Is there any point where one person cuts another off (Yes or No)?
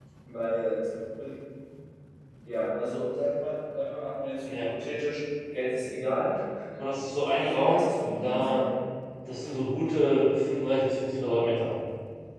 Yes